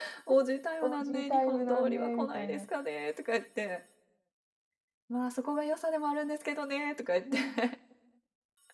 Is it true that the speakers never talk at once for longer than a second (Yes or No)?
No